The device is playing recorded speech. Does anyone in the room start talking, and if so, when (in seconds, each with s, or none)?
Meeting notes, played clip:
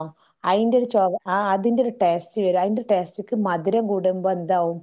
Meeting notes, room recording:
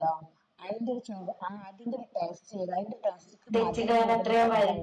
3.5 s